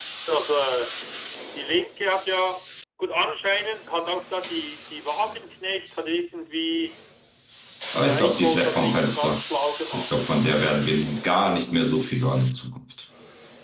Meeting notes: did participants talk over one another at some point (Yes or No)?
Yes